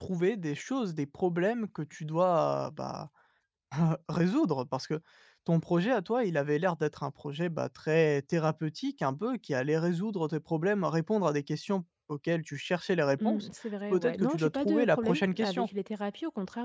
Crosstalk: present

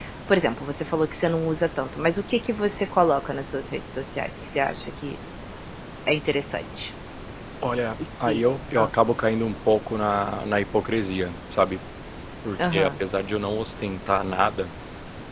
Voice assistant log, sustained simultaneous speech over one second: none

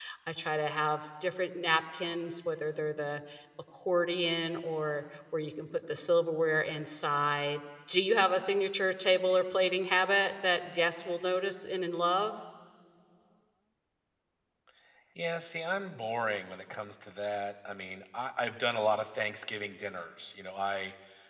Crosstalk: none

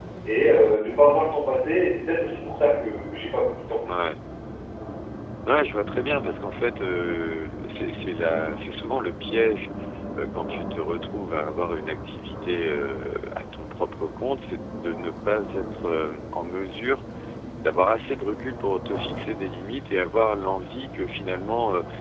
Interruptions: none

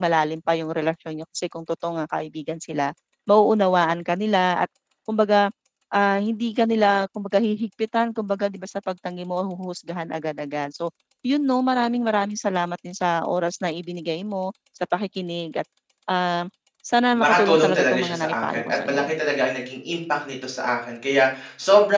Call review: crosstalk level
present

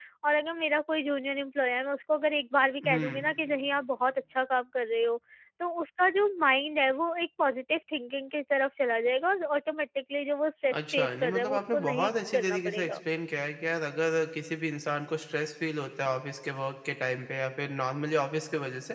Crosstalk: present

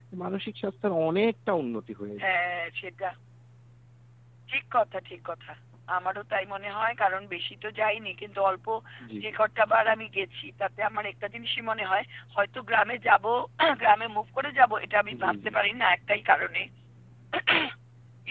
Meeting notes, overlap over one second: none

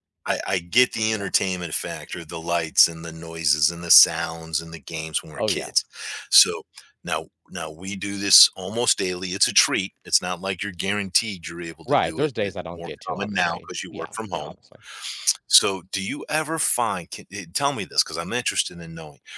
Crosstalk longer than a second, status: present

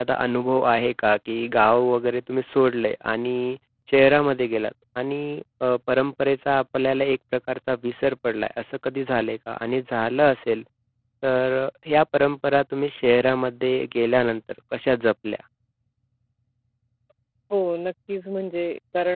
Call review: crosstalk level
none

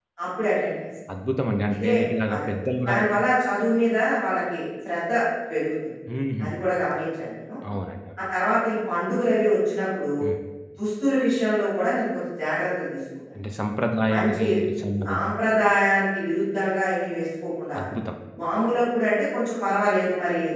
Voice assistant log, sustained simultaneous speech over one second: none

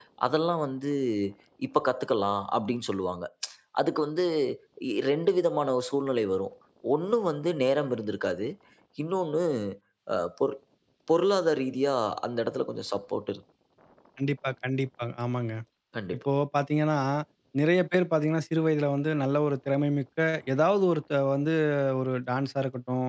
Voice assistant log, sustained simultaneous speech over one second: none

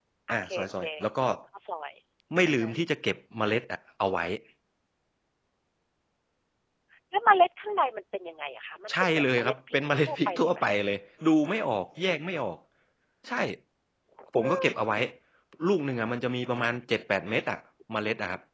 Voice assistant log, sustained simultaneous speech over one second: present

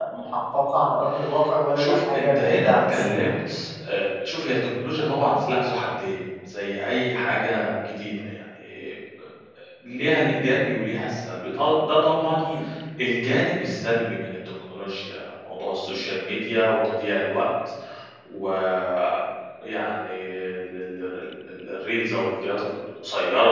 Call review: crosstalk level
present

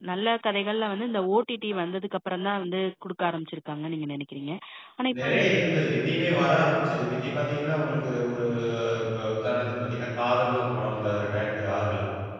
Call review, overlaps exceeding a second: none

